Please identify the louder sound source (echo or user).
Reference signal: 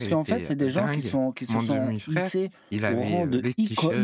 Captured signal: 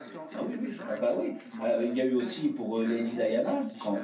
user